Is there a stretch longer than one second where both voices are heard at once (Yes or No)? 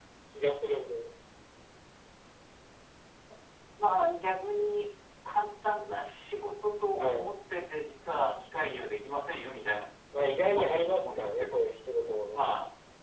Yes